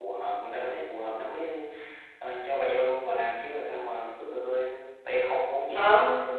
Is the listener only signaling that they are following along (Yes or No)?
No